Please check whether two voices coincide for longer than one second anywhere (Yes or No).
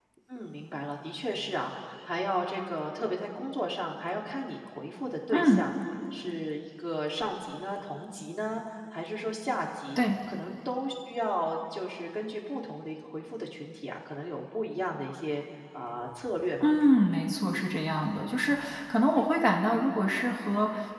No